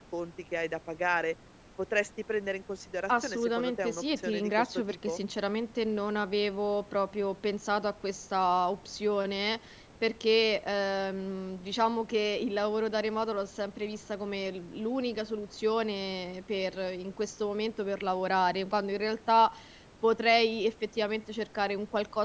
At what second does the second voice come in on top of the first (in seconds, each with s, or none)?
3.1 s